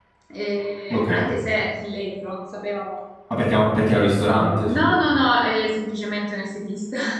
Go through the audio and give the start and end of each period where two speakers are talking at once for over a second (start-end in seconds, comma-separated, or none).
none